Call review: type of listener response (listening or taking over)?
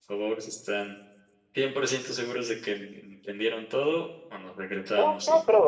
taking over